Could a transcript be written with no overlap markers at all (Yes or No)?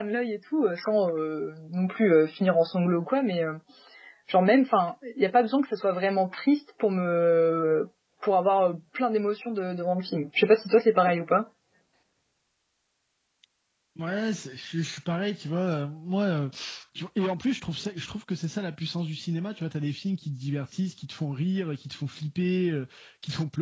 Yes